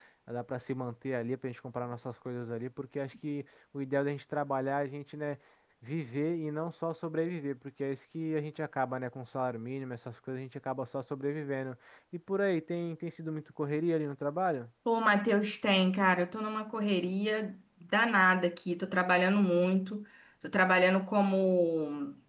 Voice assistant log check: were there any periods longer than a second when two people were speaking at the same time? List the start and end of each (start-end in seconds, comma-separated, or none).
none